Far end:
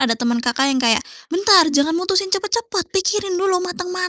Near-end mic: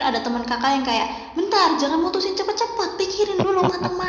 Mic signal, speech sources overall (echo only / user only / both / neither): echo only